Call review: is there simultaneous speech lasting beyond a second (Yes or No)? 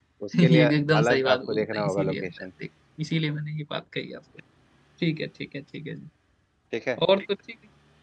Yes